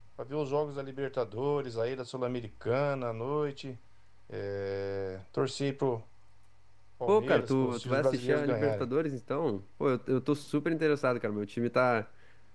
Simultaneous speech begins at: 7 s

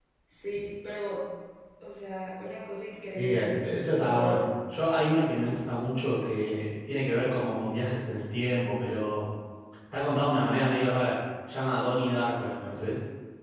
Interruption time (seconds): 3 s

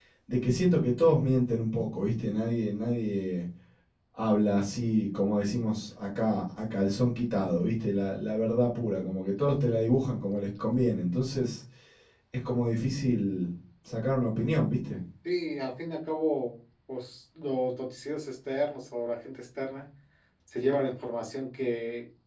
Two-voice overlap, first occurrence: none

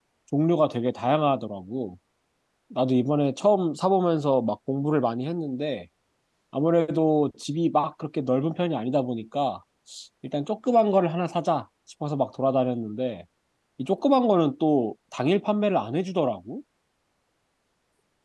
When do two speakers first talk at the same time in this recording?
none

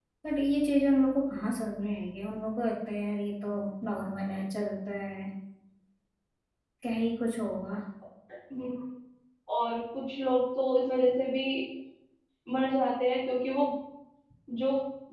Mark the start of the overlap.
none

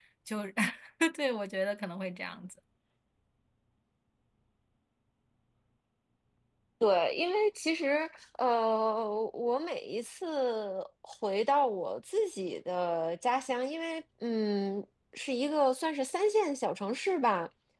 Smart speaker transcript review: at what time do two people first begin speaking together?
none

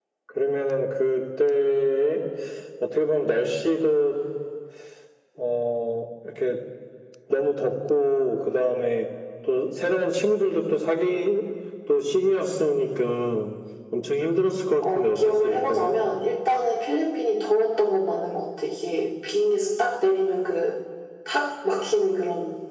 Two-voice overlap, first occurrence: 15 s

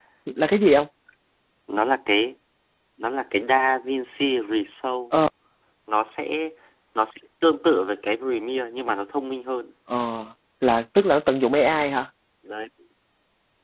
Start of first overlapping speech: none

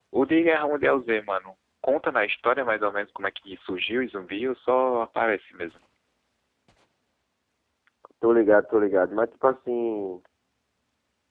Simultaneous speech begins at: none

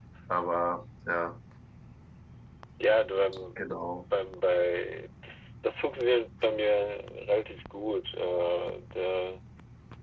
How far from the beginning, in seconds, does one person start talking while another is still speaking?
none

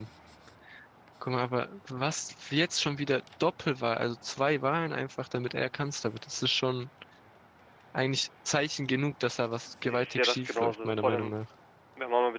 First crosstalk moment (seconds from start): 10 s

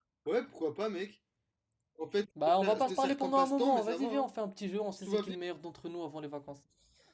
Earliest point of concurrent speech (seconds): 3 s

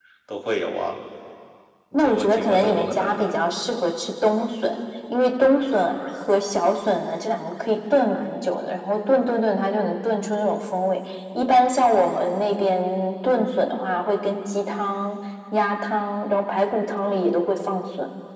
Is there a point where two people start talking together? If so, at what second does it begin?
2 s

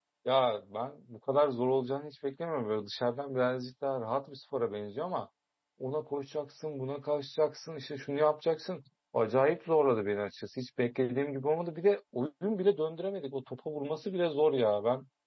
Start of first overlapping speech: none

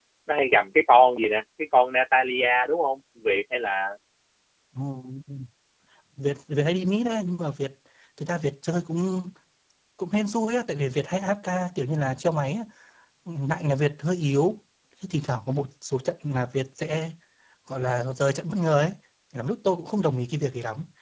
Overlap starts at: none

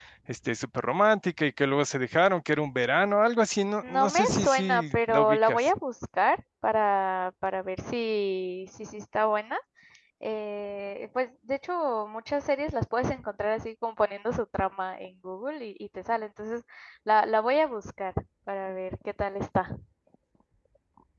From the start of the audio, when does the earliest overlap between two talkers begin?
4 s

